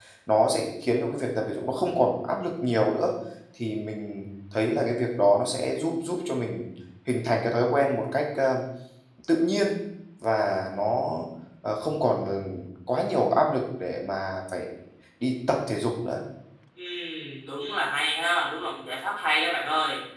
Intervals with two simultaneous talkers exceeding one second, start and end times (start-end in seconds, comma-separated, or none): none